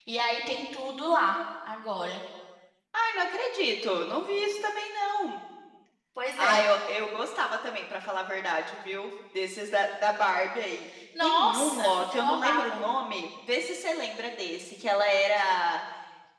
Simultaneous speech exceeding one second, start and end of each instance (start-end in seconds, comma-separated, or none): 11.2-12.8